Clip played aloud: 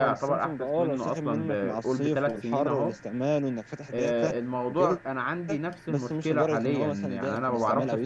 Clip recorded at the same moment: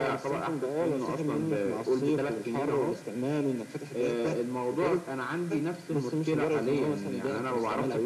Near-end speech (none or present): none